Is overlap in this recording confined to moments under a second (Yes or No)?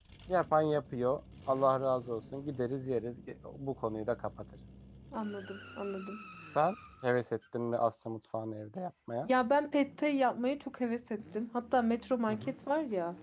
Yes